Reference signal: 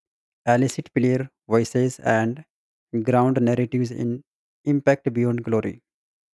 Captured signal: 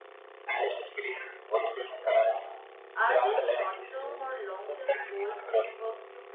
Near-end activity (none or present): present